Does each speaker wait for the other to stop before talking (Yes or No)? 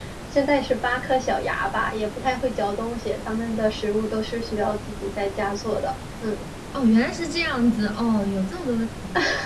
Yes